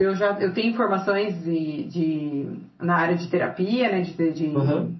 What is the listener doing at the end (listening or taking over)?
listening